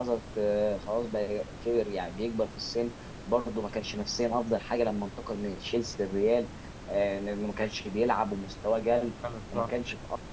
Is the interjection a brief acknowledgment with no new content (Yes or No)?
Yes